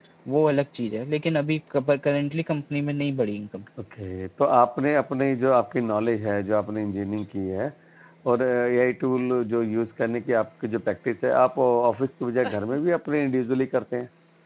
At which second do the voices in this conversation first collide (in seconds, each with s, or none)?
none